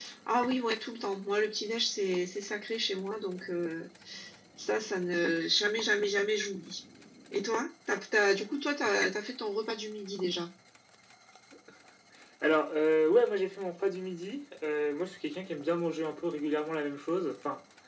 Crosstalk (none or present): none